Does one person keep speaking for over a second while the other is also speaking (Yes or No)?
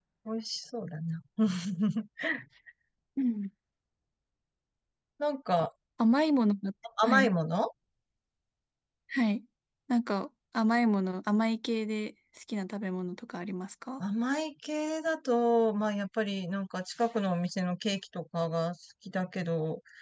No